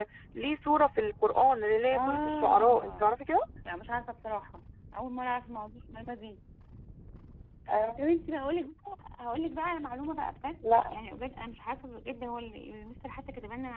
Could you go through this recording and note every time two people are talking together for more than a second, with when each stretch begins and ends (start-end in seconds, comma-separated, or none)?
1.9-3.1